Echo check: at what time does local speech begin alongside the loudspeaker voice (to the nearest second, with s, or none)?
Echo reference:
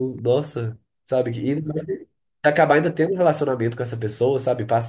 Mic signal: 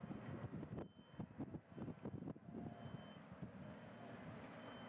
none